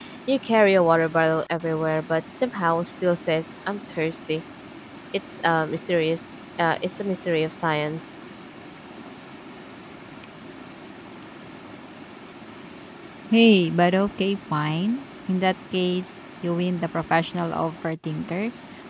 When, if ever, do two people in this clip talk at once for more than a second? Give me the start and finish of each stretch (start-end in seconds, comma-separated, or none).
none